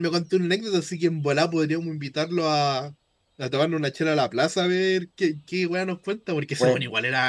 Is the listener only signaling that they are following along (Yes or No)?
No